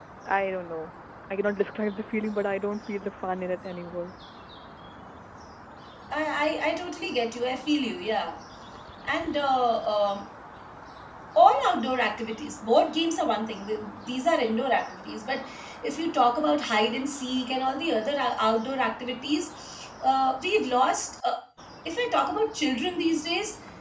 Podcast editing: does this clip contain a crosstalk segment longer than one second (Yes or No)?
No